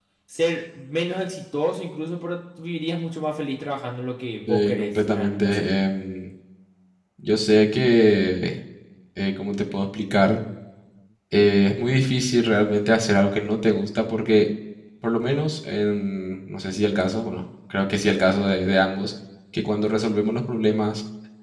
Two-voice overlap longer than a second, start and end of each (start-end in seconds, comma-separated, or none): 4.5-5.7